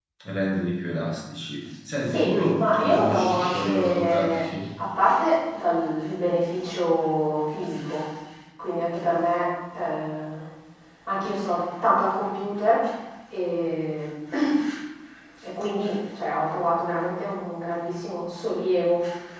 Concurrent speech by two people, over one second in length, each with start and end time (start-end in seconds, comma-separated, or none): 2.0-4.5